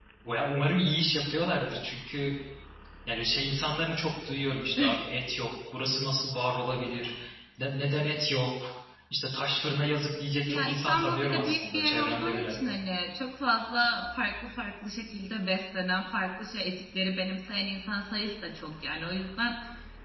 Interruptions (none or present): present